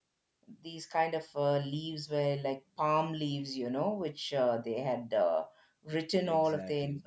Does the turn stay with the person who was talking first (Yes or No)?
Yes